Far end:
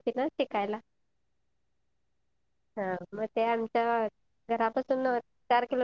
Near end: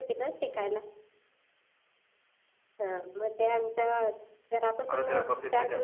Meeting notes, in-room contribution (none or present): present